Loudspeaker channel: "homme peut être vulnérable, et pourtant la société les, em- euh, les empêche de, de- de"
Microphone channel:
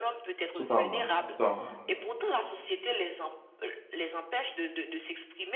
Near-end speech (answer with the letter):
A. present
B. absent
A